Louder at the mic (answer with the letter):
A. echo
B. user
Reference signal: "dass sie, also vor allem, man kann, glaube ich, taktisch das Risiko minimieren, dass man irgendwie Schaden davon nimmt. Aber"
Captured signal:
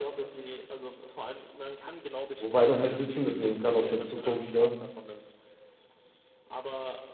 B